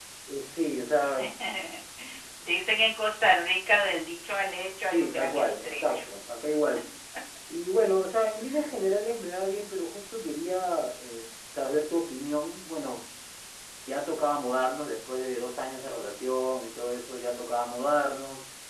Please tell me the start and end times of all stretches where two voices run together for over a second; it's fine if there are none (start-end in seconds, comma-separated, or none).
4.9-6.1